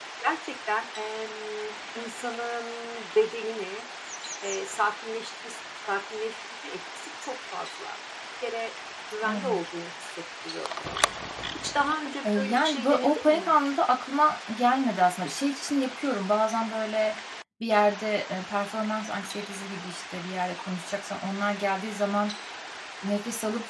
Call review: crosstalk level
present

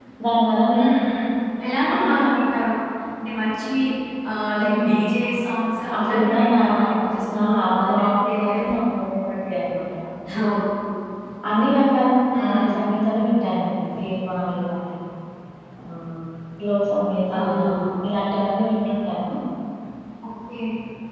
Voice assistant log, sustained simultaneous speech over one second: present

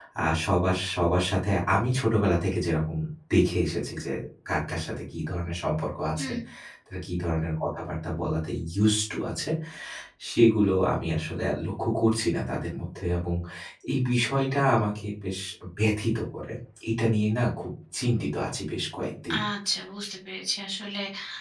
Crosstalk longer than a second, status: none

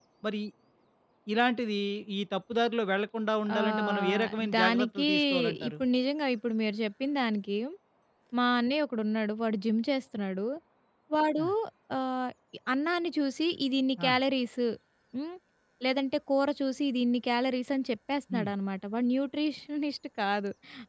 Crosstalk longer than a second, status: present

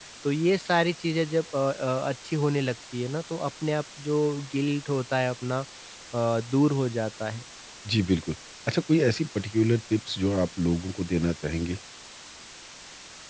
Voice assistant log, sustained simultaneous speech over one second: none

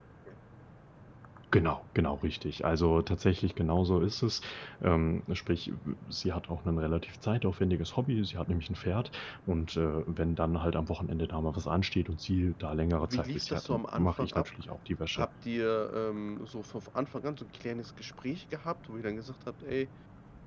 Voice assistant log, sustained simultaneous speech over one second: present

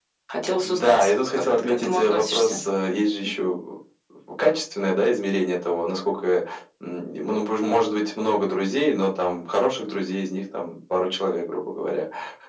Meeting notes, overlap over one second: present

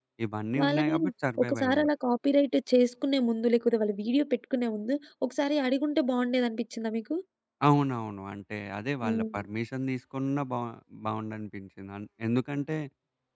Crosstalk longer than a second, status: none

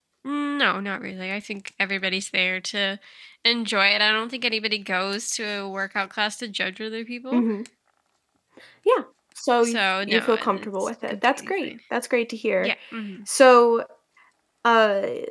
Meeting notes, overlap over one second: present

